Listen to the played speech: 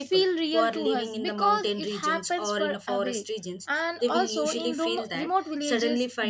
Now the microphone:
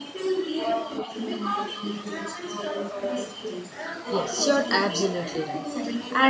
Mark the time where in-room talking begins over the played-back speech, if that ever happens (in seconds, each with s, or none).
4.1 s